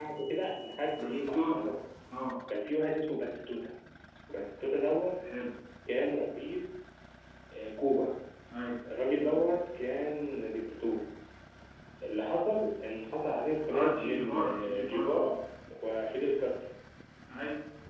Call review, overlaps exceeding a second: present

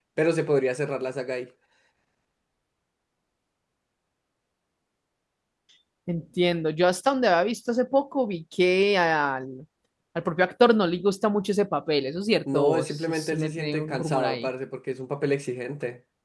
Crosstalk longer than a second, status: present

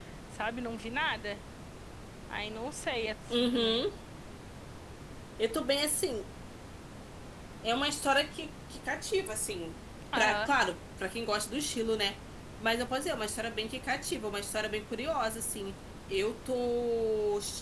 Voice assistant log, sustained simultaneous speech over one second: none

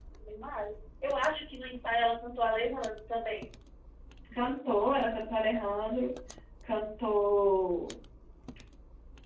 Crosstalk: none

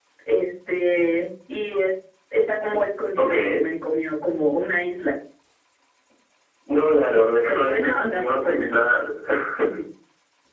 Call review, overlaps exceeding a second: present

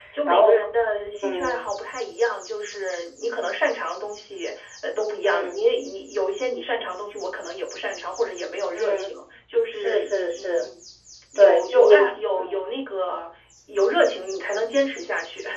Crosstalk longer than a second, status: present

